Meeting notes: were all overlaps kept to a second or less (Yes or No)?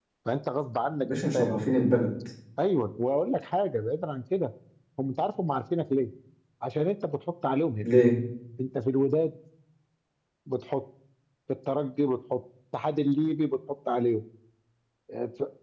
Yes